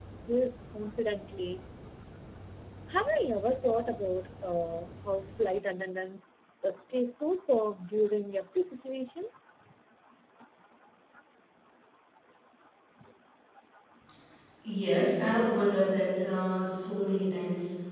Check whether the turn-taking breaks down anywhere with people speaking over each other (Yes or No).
No